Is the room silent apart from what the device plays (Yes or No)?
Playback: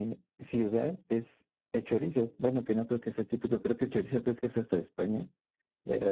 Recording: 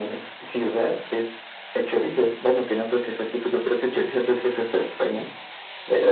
Yes